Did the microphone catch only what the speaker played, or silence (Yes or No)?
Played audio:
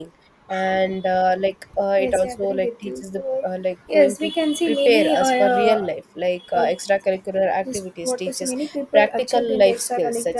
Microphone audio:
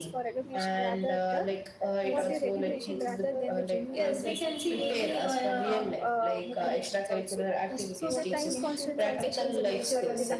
No